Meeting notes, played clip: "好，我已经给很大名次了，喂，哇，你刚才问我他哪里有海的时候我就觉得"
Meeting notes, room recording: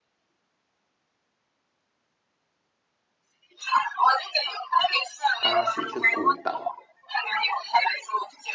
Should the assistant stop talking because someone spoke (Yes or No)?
Yes